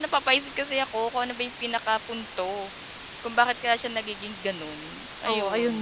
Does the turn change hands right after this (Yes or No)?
Yes